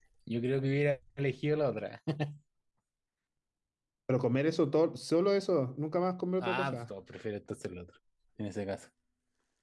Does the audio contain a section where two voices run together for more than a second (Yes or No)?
No